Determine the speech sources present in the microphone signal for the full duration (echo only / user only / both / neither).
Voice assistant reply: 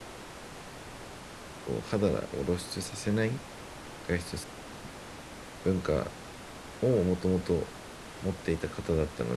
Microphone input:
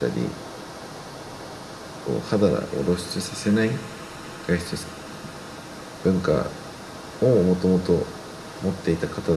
echo only